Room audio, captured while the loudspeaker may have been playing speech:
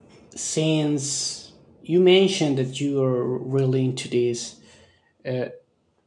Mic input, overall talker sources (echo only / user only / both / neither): user only